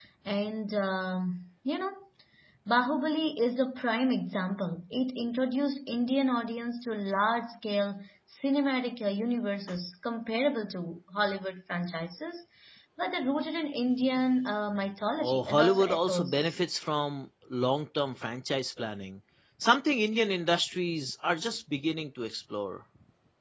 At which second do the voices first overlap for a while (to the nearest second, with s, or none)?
15 s